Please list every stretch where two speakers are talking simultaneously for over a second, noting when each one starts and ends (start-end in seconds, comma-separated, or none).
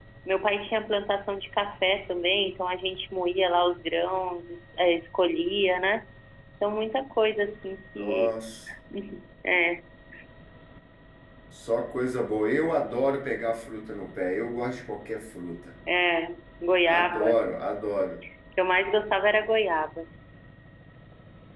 none